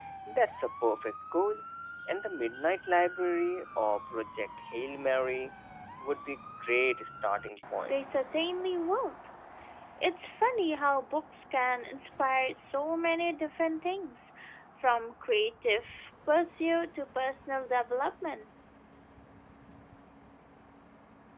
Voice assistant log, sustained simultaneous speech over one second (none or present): none